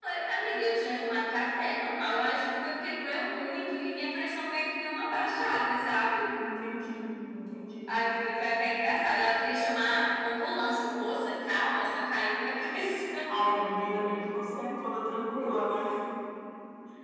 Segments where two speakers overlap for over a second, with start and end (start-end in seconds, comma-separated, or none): none